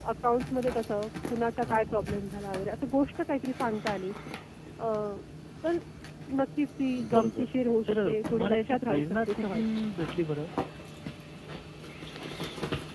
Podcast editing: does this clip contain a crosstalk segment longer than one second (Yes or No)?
Yes